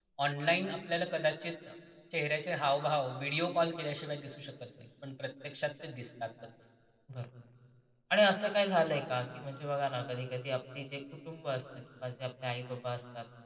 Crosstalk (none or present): none